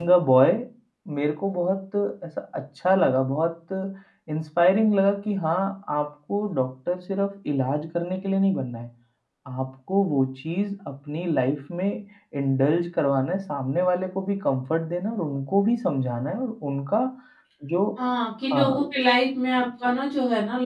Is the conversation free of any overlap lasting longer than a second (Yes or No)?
Yes